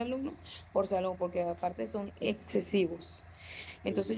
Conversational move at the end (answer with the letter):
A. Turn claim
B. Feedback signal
B